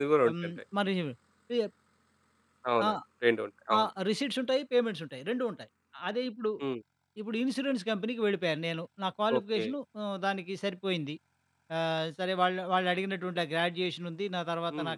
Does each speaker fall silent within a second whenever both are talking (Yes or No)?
Yes